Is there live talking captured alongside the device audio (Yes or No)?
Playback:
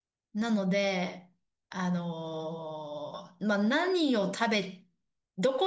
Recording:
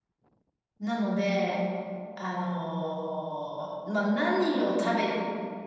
No